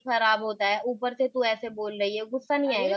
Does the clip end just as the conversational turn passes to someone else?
Yes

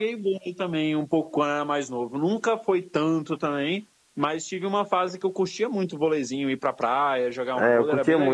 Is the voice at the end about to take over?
Yes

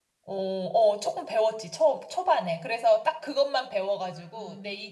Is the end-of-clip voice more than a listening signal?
No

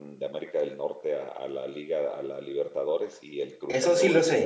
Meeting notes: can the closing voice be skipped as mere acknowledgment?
No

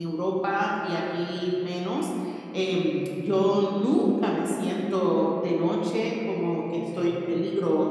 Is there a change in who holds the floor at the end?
No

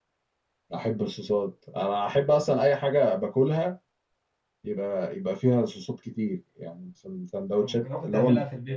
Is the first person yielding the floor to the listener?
Yes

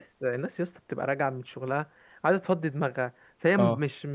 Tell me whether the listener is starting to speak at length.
No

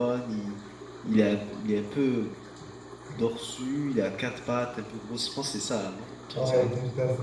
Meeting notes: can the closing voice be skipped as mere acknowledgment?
No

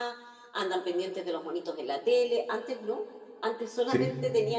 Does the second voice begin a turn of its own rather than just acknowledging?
No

